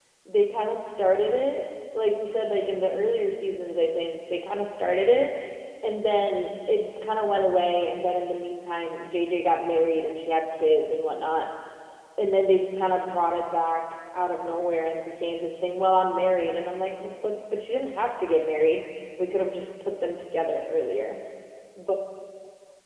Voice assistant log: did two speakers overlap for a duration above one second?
No

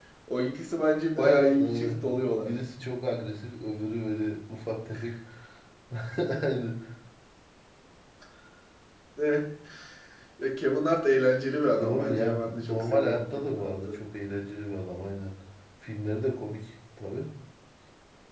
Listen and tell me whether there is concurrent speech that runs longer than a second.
Yes, from 1.1 s

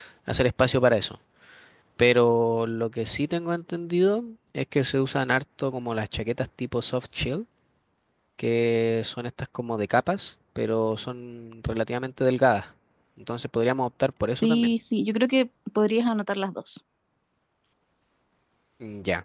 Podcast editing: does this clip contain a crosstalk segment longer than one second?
No

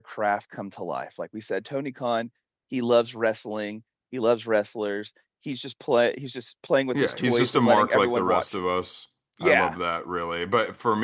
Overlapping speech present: Yes, from 6.9 s

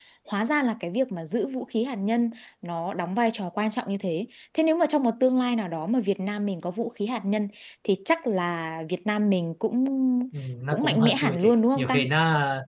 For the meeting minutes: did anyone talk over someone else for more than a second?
Yes, from 10.7 s

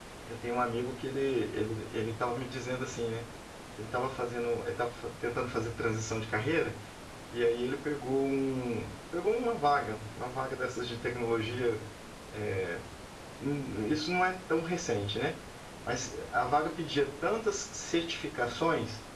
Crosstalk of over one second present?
No

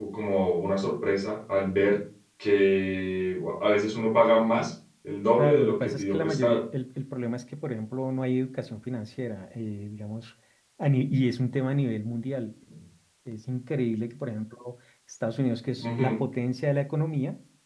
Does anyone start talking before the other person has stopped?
Yes, from 5.4 s

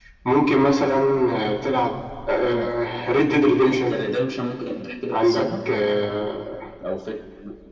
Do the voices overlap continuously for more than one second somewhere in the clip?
No

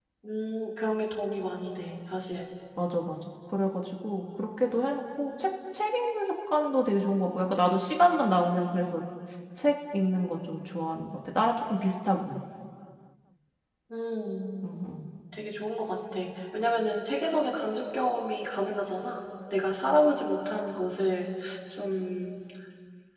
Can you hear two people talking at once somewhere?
No

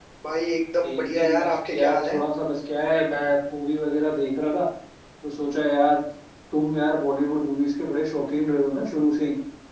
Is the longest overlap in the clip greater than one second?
Yes, from 0.8 s

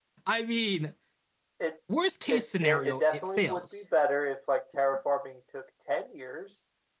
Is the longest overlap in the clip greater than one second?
Yes, from 2.3 s

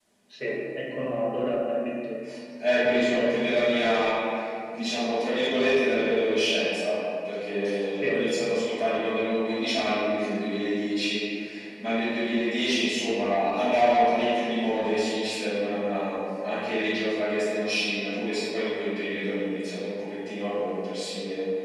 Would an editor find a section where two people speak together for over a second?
Yes, from 2.8 s

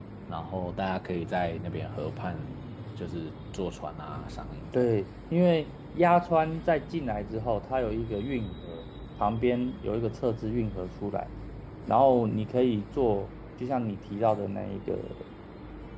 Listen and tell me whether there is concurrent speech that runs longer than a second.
No

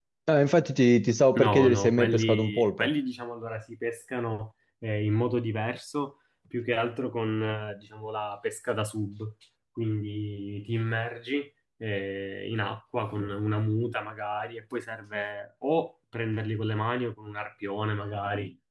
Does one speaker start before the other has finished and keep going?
Yes, from 1.4 s

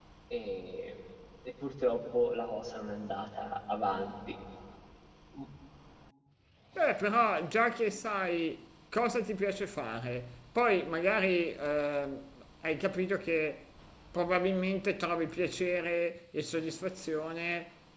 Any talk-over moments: No

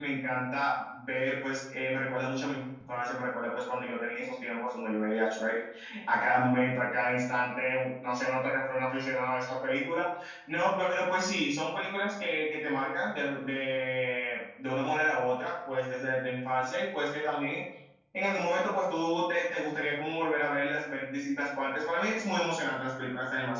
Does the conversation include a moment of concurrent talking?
No

